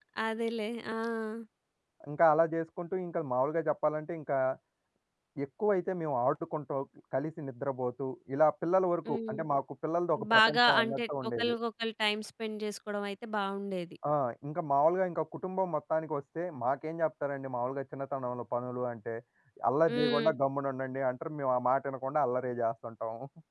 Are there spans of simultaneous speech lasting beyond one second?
Yes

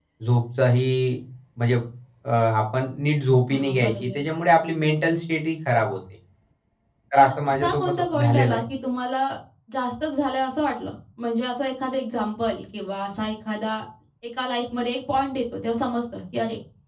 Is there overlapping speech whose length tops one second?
Yes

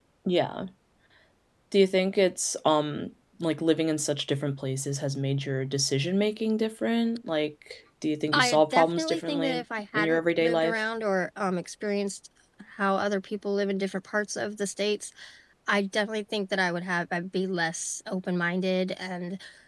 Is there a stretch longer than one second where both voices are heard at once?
Yes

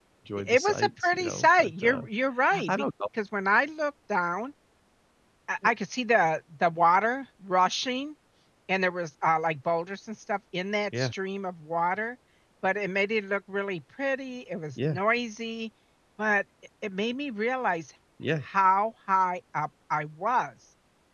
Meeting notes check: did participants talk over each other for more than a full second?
Yes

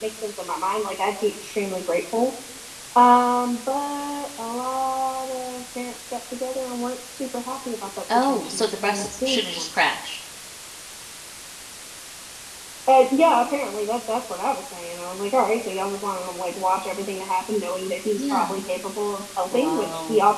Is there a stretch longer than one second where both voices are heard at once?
Yes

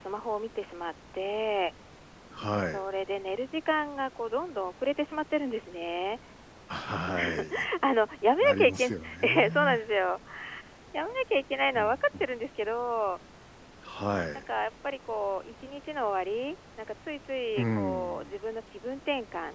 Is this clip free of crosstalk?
No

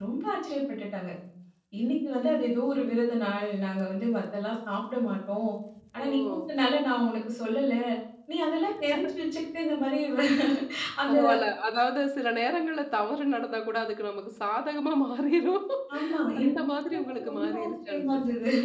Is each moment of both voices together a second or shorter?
No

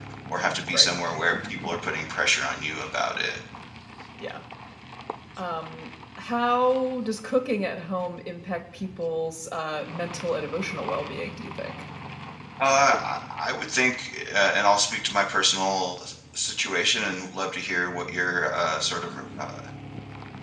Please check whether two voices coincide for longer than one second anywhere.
No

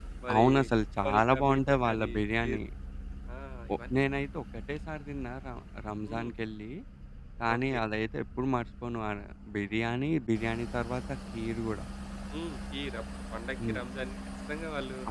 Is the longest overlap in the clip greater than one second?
Yes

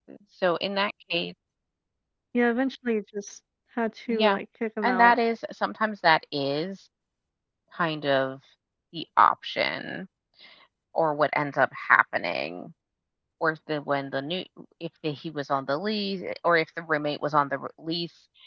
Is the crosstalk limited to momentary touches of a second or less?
Yes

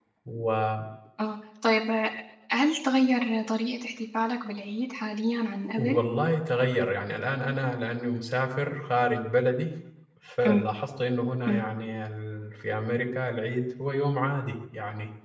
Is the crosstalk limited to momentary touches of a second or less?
Yes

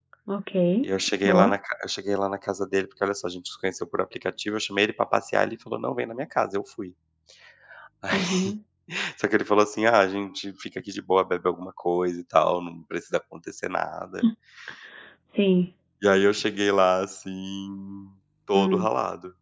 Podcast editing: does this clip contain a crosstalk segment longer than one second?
No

